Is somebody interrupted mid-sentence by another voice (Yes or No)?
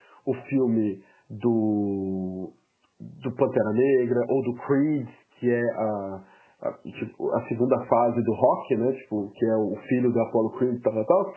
No